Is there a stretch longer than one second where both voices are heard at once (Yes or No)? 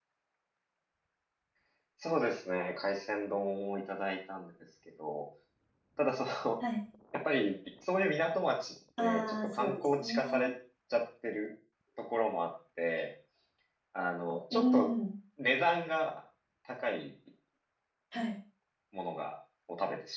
Yes